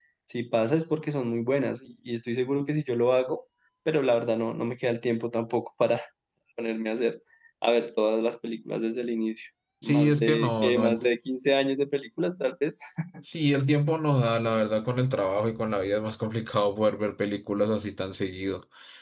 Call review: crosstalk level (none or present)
present